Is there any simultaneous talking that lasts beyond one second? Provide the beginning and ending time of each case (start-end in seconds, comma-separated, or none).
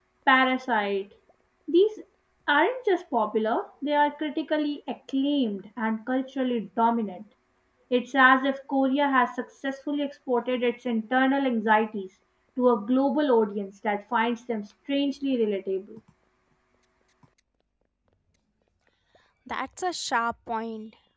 none